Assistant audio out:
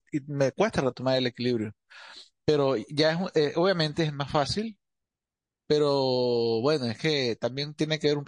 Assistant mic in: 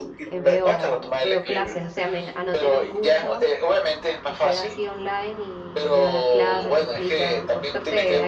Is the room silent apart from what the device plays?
No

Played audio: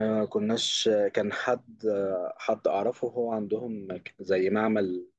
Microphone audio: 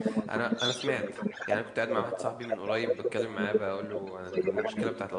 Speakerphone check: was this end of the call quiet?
No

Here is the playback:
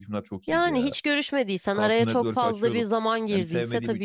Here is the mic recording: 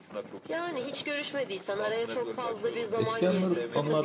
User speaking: Yes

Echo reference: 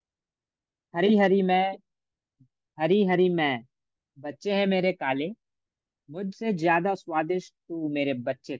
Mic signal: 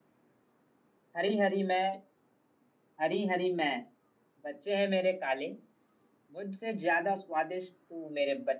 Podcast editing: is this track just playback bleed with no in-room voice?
Yes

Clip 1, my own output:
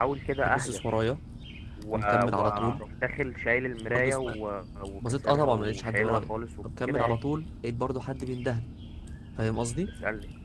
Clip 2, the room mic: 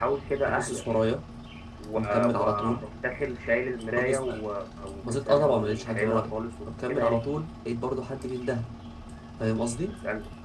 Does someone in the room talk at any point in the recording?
No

